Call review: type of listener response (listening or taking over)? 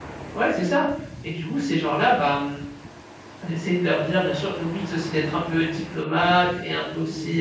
listening